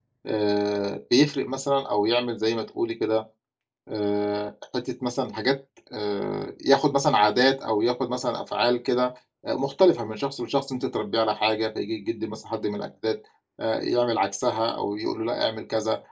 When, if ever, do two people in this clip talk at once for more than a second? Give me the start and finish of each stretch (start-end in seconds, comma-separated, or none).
none